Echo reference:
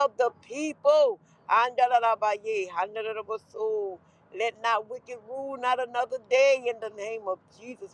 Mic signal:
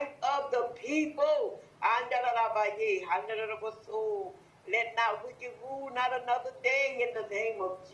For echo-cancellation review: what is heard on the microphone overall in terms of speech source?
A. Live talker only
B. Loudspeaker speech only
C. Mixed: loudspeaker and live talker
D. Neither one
B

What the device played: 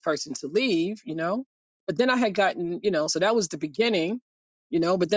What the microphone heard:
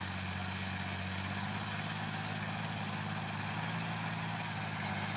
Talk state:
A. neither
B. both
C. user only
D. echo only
A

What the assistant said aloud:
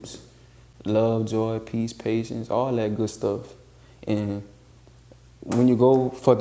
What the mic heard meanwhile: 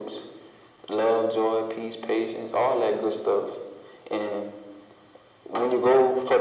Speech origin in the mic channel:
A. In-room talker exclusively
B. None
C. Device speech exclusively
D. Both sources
C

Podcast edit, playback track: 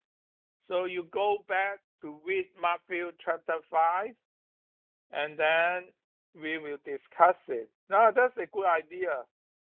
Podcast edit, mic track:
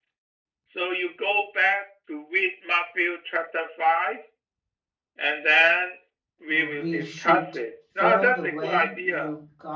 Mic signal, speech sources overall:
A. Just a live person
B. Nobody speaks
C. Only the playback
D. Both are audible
D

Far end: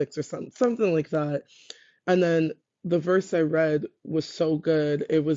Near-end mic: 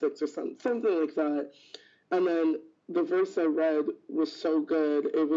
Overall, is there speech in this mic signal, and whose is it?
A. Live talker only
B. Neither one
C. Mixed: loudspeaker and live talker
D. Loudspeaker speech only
D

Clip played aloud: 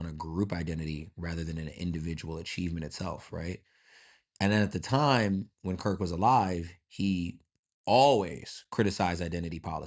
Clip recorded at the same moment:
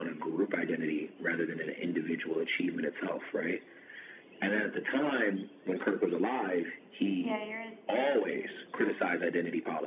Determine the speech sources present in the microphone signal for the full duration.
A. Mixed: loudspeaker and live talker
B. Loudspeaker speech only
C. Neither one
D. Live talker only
A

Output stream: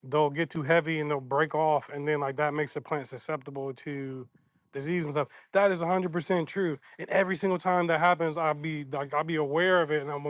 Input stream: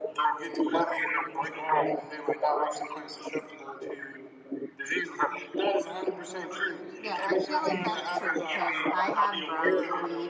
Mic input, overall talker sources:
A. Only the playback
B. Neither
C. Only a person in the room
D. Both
D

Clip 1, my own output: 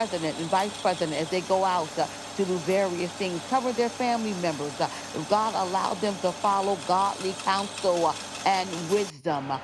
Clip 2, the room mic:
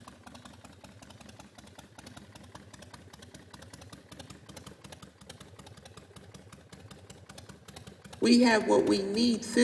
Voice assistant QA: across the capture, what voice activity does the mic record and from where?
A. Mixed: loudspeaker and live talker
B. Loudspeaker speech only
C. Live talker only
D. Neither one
C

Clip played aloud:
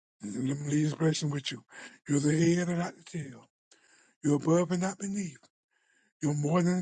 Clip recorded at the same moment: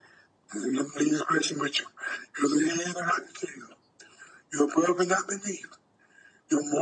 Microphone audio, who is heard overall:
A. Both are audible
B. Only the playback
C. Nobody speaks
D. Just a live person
B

